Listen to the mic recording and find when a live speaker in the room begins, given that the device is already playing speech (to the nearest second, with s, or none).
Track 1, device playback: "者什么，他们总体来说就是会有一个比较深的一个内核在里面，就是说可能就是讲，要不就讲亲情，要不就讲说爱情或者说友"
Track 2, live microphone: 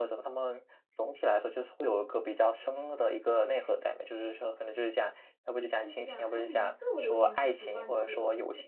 6 s